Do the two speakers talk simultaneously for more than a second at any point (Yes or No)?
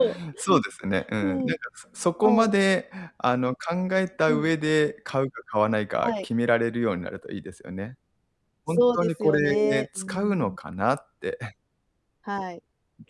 Yes